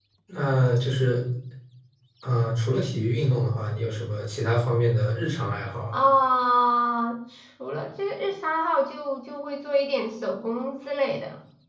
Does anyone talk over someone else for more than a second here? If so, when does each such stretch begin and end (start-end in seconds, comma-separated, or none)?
none